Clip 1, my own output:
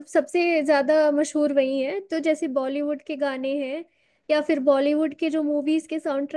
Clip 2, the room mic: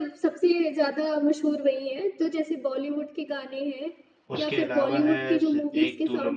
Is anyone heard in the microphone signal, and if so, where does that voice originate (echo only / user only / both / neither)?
both